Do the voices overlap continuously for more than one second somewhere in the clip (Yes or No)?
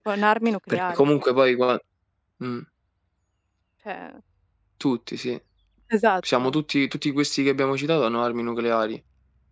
No